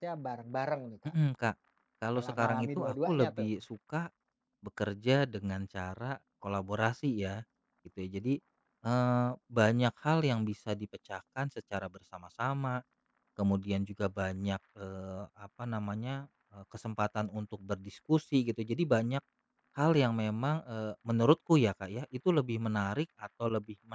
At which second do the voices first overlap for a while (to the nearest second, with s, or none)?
2 s